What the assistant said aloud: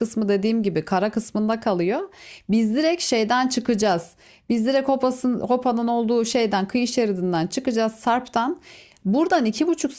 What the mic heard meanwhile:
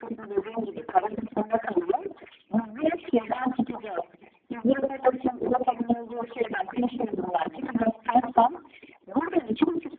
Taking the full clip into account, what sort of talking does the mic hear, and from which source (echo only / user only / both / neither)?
echo only